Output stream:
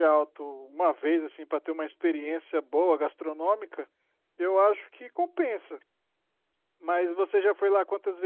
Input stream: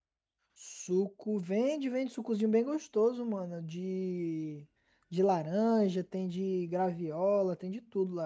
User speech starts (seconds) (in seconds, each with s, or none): 0.5 s